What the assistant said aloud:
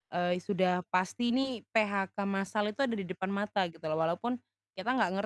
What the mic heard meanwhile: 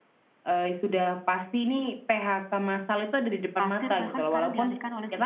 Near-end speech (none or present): present